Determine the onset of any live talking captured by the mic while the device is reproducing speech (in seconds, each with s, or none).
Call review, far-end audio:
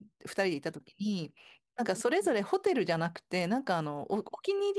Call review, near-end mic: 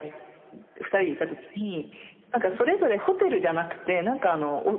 none